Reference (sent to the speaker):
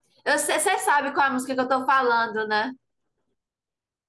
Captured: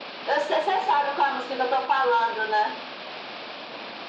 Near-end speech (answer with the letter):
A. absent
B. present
A